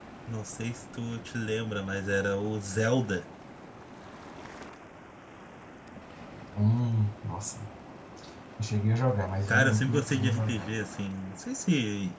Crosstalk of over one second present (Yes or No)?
Yes